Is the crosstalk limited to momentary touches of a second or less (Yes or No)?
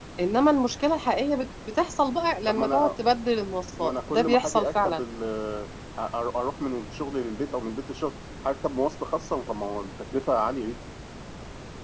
No